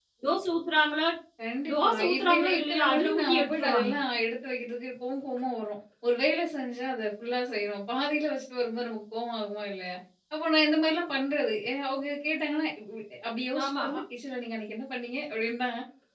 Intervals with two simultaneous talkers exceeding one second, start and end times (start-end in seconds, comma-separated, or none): 1.7-3.9